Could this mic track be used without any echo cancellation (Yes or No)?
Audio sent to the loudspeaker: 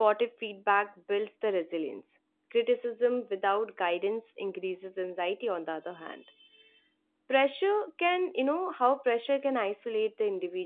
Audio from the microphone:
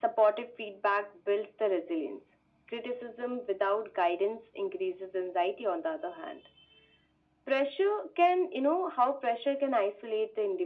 No